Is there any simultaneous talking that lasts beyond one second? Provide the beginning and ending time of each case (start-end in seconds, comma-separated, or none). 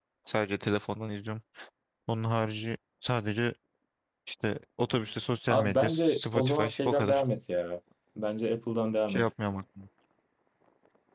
5.5-7.2